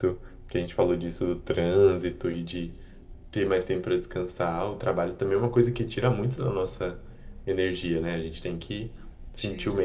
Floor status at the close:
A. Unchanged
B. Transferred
A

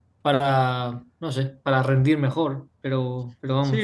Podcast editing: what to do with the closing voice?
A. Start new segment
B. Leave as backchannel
A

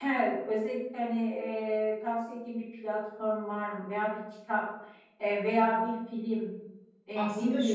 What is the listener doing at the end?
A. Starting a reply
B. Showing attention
B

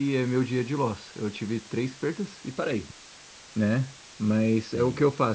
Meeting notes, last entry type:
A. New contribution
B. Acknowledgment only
B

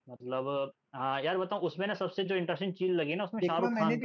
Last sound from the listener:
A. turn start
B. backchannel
A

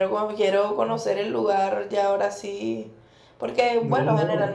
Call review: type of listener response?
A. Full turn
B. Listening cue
B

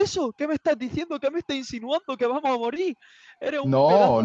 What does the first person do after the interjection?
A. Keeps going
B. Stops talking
B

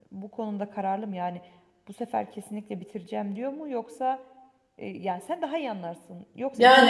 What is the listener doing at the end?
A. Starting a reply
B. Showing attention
B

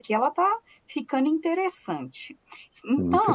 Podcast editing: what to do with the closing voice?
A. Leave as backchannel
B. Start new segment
A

